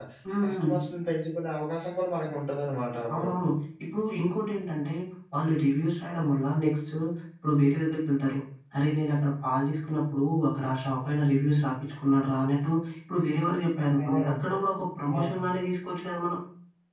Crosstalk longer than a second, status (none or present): none